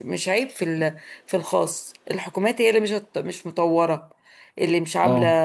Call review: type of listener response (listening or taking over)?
taking over